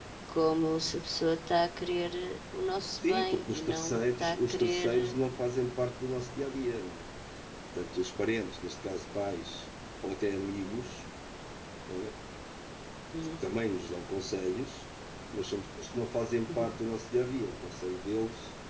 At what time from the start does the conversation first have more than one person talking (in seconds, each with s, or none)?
3.0 s